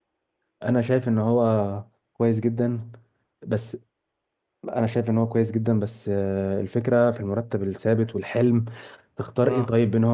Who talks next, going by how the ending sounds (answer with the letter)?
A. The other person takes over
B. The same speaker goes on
B